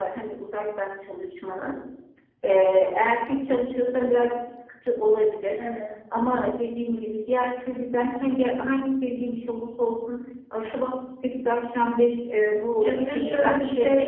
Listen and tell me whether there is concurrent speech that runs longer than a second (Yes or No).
Yes